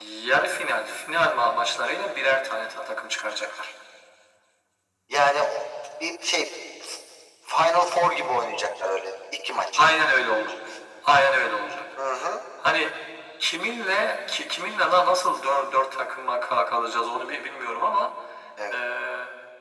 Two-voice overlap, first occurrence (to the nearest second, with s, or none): none